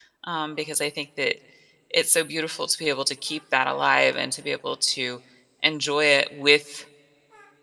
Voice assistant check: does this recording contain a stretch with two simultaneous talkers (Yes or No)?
No